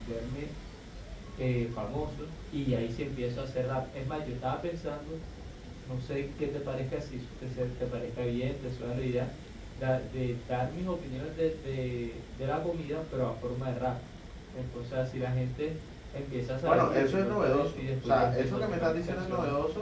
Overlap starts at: 17 s

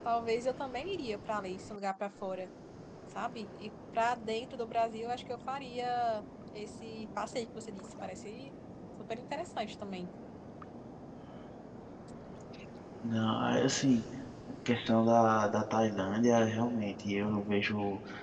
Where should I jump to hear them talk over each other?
none

